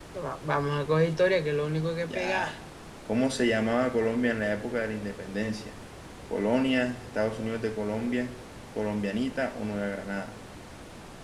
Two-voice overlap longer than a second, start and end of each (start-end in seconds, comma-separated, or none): none